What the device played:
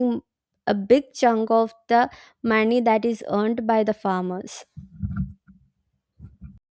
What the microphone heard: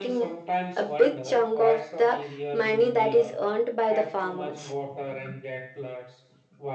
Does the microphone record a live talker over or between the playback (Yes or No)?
Yes